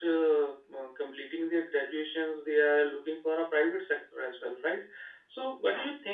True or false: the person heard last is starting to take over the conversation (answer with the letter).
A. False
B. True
A